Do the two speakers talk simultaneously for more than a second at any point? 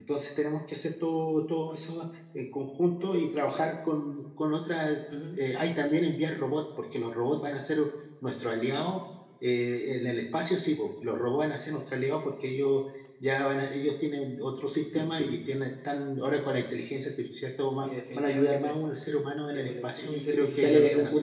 Yes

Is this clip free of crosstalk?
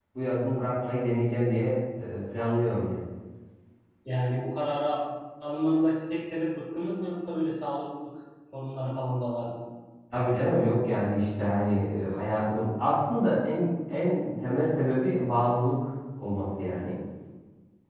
Yes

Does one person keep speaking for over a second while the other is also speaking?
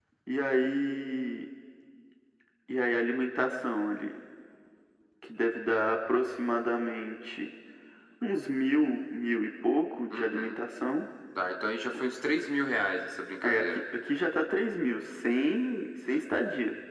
No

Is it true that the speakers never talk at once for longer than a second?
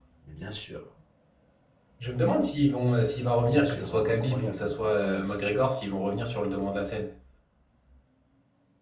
No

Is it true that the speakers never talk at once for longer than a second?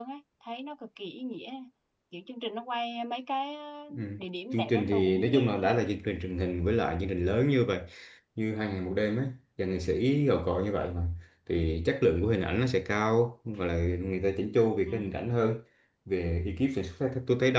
No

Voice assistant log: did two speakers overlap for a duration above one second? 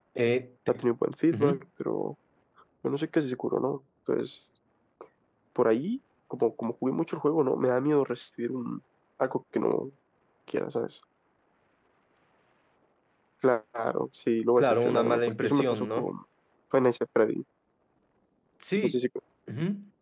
Yes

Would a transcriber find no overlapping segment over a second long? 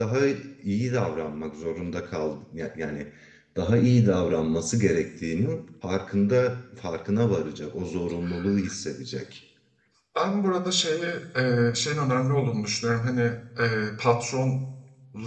Yes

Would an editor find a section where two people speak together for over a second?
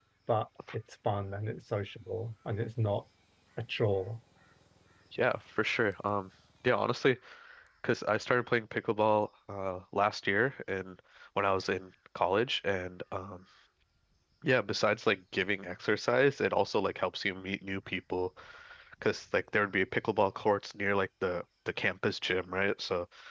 No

